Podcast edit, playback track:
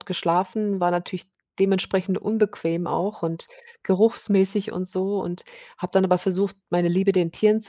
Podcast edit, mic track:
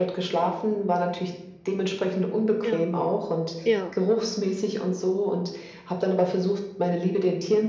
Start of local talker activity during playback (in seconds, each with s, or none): 2.6 s